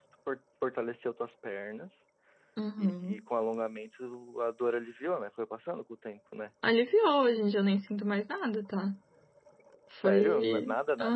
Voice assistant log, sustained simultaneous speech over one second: present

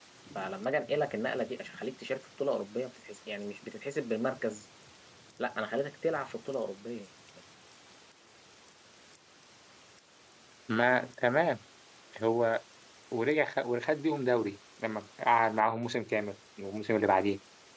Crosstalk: none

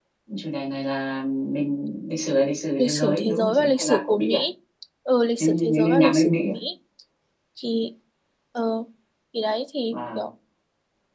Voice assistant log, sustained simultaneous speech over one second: present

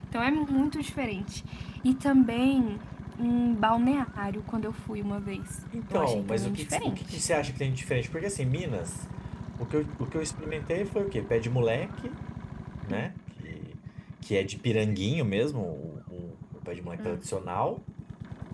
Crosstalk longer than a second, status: present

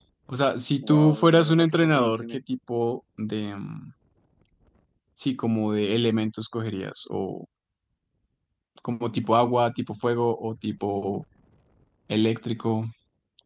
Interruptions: present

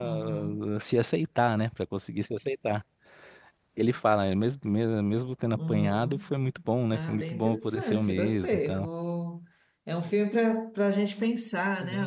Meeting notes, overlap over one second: present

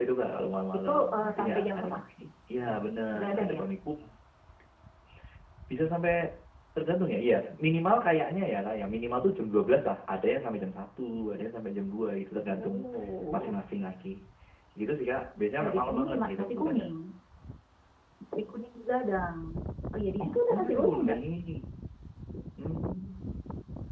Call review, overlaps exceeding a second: present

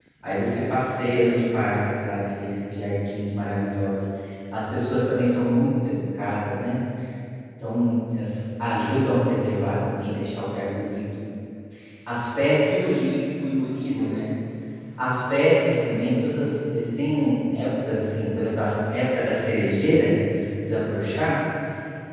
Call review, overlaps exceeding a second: none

